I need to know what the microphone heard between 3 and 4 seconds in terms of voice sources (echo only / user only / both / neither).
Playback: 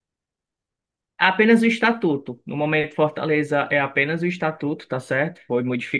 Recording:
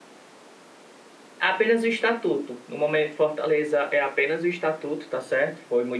echo only